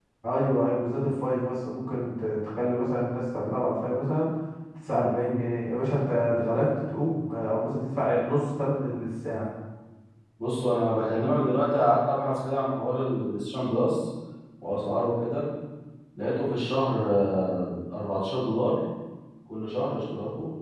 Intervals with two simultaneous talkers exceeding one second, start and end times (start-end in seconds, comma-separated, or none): none